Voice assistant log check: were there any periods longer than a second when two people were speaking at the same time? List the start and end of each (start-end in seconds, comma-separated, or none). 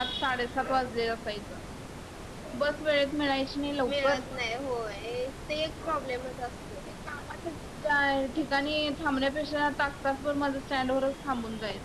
none